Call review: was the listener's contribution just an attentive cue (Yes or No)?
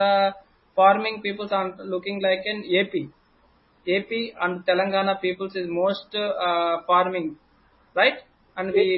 No